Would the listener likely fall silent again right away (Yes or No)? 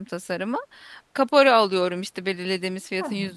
Yes